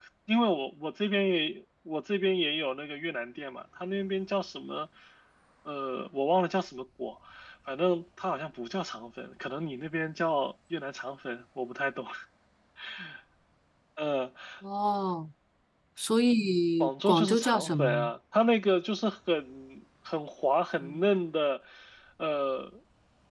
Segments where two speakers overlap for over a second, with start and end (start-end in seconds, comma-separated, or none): 16.8-18.1